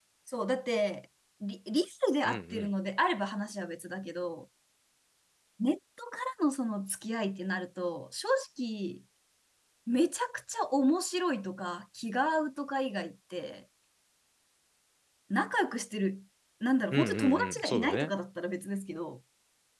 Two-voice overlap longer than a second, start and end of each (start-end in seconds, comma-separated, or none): 16.9-18.1